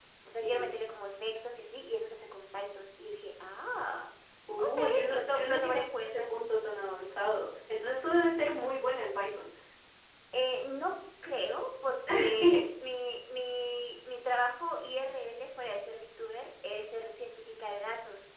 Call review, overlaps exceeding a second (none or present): present